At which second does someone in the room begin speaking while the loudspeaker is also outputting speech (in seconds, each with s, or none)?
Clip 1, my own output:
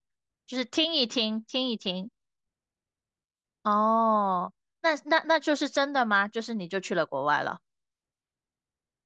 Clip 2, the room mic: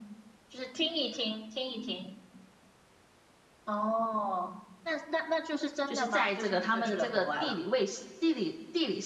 5.8 s